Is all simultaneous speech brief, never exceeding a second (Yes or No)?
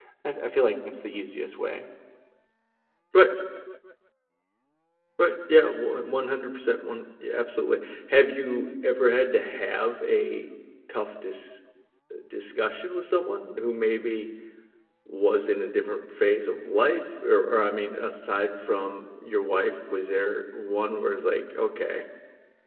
Yes